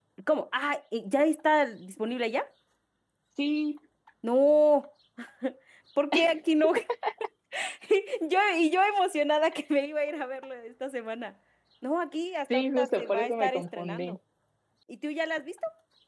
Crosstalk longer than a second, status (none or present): present